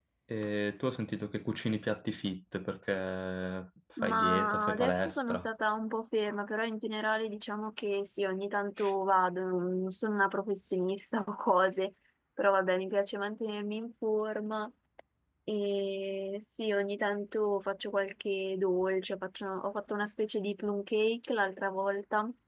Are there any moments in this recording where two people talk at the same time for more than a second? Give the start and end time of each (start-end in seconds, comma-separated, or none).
4.0-5.5